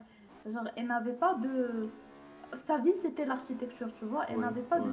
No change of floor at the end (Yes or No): Yes